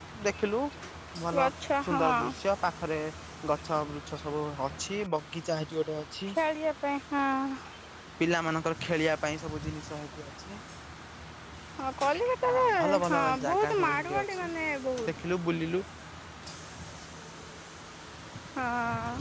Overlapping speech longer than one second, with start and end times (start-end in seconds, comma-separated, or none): 12.4-14.5